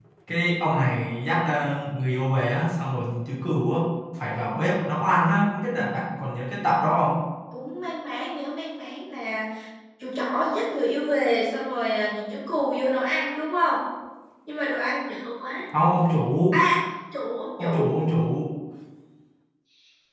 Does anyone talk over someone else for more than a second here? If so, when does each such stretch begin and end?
none

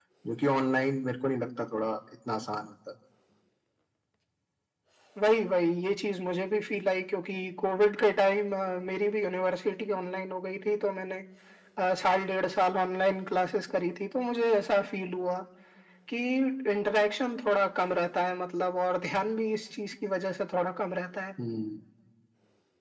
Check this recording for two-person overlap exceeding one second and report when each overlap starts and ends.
none

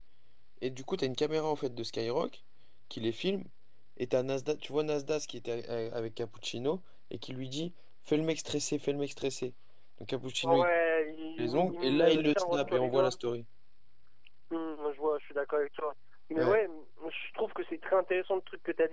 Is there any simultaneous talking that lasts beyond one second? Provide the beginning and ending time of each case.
11.4-13.1

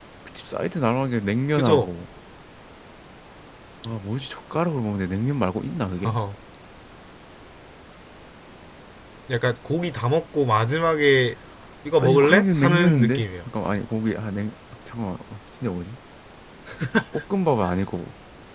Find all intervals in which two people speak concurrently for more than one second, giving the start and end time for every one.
12.0-13.2

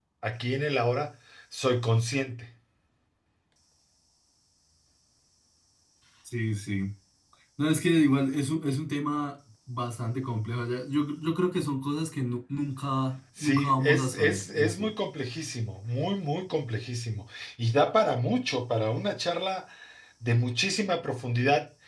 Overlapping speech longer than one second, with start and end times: 13.4-14.9

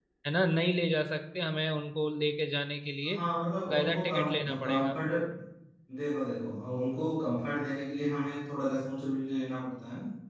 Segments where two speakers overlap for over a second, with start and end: 3.7-5.0

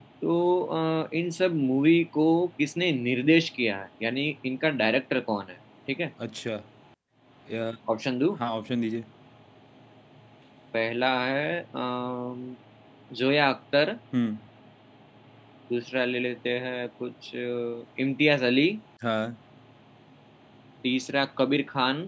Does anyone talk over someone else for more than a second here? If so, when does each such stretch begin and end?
none

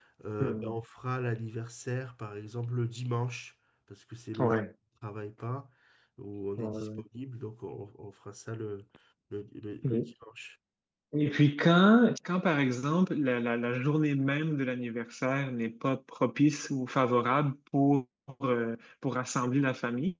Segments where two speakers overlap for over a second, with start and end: none

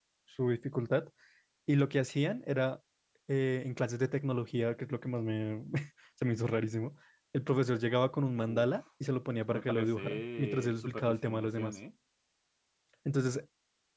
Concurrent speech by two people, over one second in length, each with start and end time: 9.5-11.8

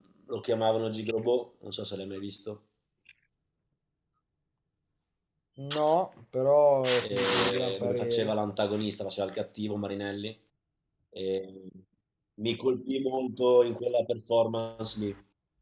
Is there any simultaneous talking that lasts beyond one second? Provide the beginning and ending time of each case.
7.1-8.3

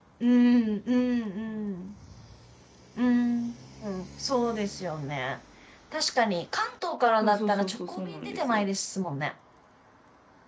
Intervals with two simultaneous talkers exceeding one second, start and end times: 7.2-8.7

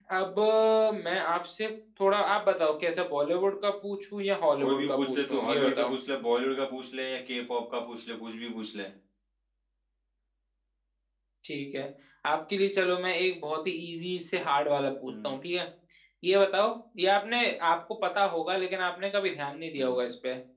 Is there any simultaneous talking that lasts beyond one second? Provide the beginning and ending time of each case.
4.6-5.9

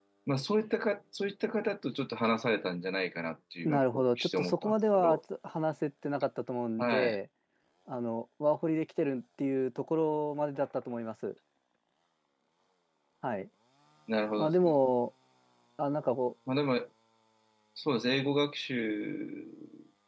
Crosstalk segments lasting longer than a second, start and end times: 3.6-5.2

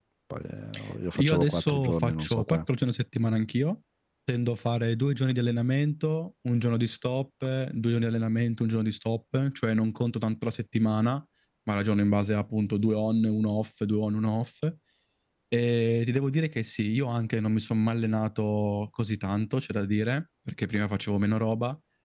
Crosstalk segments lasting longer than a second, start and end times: 1.2-2.6

